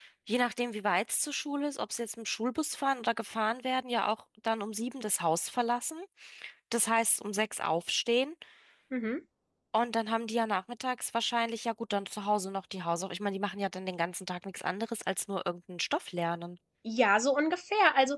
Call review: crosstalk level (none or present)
none